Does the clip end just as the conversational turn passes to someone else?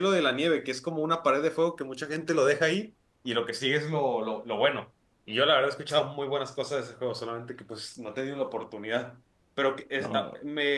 No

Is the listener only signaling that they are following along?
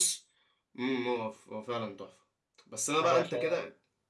Yes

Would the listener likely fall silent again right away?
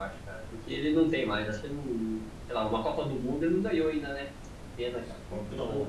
No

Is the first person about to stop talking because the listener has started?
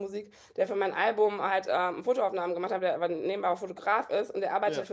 No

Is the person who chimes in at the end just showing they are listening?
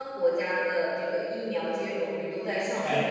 Yes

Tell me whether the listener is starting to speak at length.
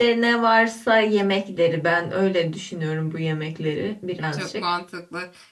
Yes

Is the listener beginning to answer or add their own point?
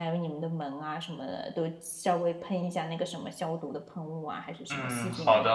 Yes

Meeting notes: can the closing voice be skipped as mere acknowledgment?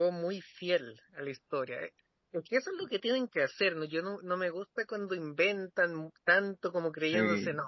Yes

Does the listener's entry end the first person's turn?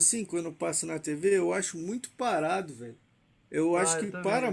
Yes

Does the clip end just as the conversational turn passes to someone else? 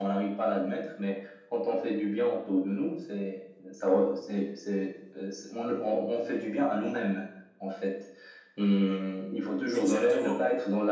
No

